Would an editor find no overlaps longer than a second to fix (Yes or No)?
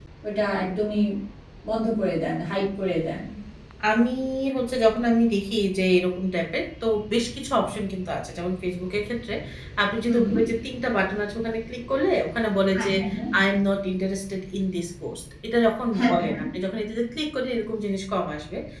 Yes